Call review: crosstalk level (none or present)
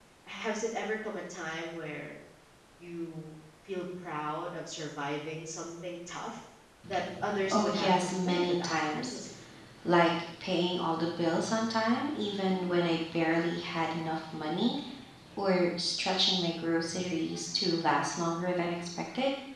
present